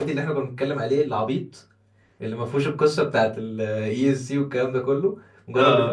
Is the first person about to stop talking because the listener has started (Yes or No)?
Yes